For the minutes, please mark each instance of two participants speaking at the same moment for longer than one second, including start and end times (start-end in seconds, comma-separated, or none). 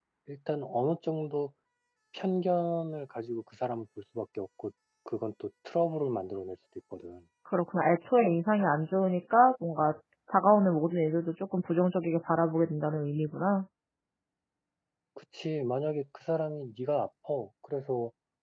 none